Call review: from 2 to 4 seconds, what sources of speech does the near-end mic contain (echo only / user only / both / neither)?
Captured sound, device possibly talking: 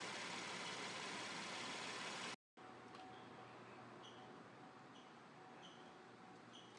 neither